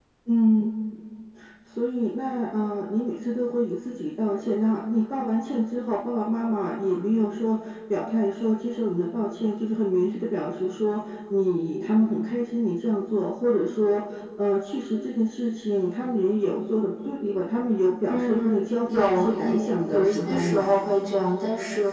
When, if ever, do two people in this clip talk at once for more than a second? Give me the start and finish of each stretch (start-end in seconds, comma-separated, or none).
18.1-20.7